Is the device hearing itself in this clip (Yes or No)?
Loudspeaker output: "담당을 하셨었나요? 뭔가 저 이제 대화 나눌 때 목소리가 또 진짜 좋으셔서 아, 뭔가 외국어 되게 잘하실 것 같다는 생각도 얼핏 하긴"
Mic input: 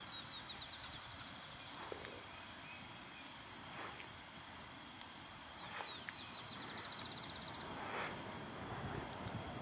No